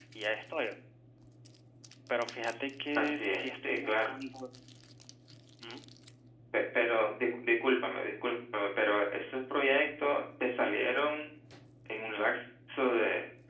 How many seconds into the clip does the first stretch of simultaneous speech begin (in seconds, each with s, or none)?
3.0 s